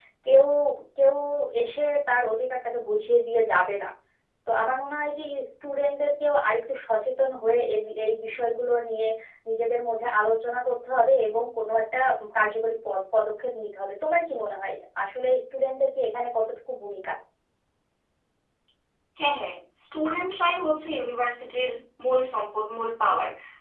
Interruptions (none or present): none